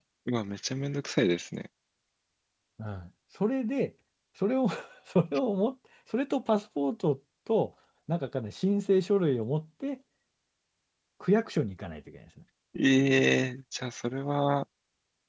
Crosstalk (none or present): none